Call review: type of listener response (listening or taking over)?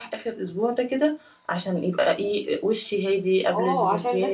taking over